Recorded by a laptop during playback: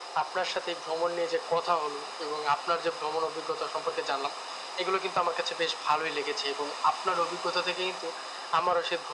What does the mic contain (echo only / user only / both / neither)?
echo only